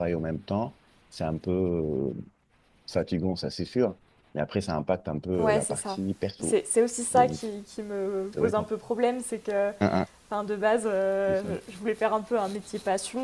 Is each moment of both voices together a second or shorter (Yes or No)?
Yes